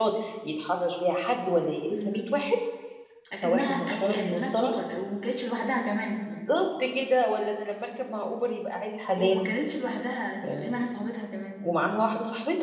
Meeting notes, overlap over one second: present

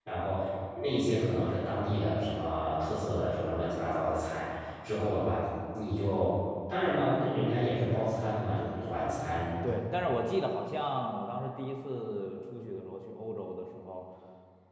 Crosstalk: none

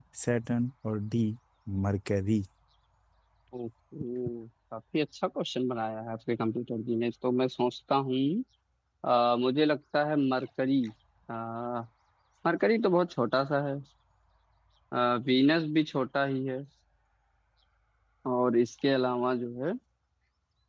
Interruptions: none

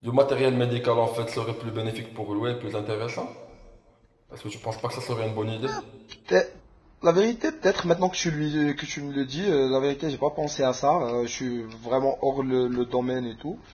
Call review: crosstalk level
none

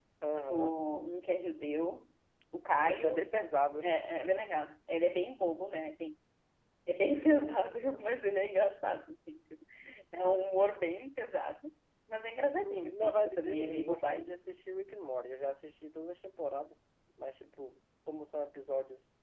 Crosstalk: present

